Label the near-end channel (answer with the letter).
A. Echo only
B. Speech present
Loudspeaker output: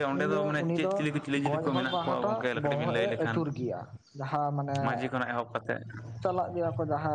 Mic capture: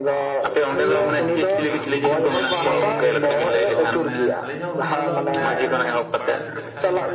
B